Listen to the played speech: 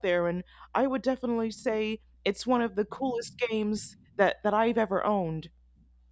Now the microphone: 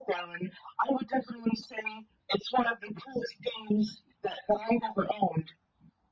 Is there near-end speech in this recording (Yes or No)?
No